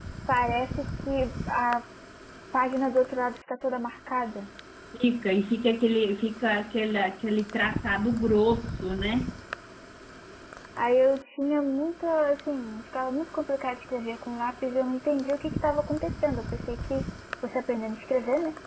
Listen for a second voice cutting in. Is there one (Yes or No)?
No